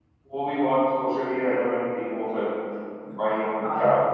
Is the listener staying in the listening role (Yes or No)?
Yes